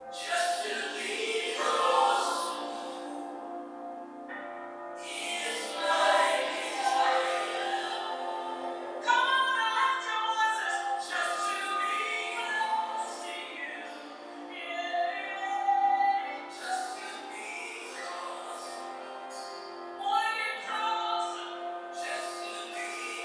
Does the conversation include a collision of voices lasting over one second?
No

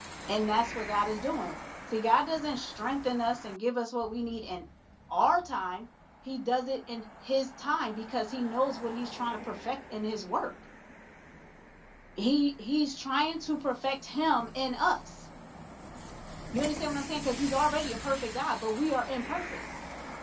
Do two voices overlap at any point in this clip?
No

